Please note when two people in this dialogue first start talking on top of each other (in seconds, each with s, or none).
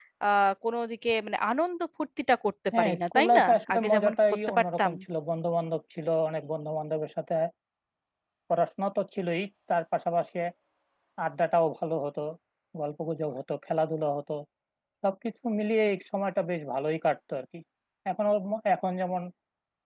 2.7 s